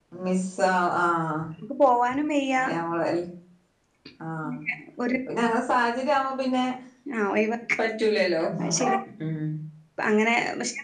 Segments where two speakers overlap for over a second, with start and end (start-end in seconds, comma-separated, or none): none